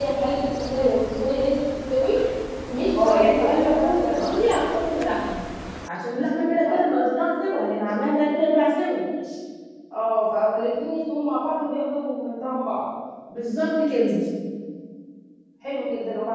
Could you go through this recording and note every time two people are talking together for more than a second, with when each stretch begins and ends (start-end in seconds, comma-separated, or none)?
3.0-4.3